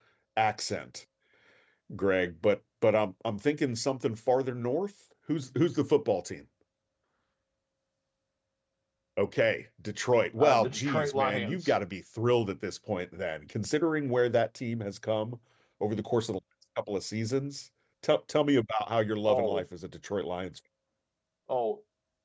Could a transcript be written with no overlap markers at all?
No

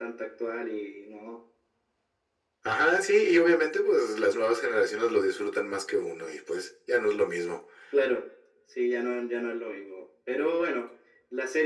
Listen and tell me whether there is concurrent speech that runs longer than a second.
No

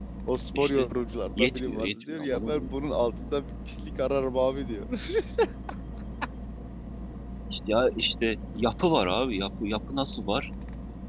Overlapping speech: Yes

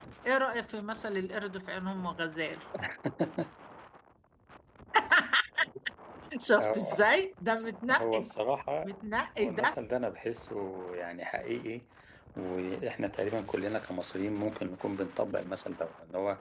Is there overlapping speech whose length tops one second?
No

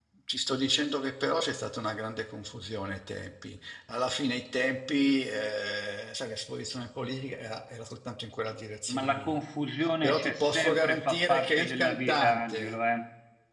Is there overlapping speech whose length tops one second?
Yes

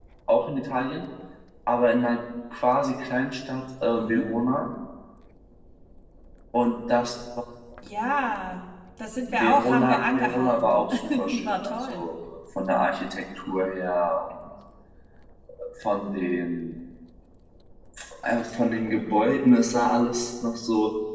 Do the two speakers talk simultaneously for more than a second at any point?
Yes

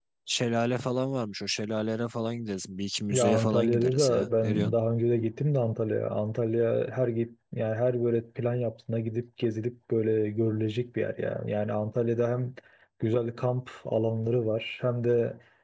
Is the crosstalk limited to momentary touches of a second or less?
No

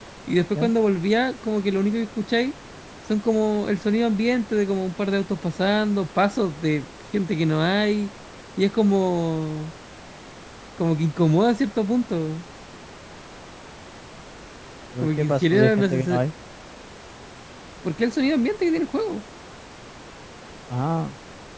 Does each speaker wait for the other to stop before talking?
No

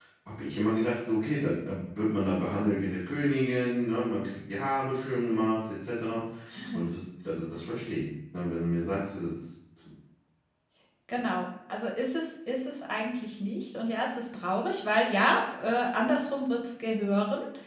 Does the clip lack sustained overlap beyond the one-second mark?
Yes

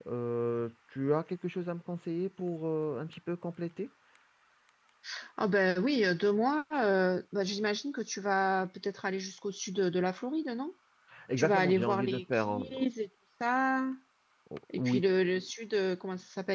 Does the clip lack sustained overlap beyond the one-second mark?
No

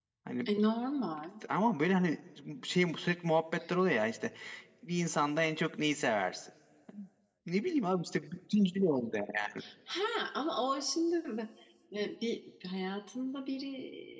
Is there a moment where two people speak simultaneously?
No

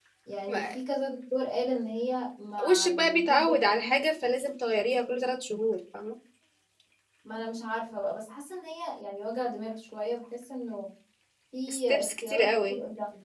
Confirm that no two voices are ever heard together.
No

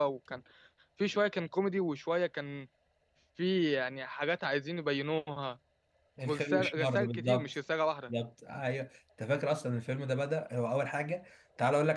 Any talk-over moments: Yes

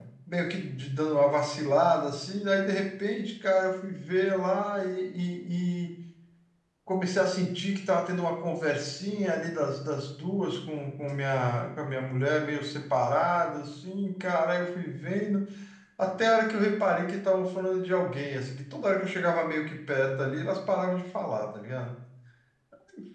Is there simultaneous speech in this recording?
No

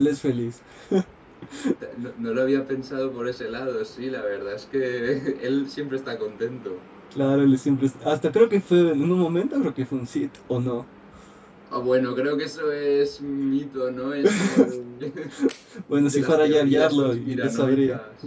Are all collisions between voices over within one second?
No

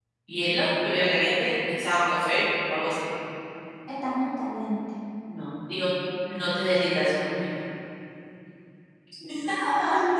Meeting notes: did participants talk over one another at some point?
No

